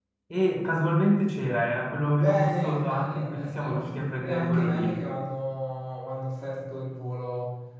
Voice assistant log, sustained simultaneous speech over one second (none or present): present